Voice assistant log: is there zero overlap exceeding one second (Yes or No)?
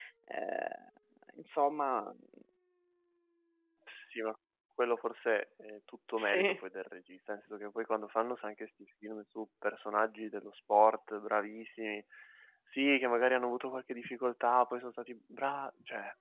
Yes